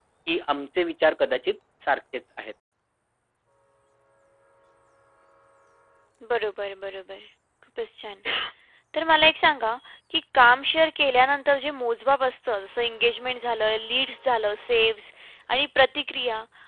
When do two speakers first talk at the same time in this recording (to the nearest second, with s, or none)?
none